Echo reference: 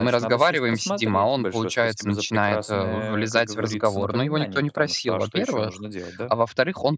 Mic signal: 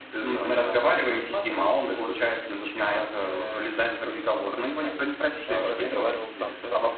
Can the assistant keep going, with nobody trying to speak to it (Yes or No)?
No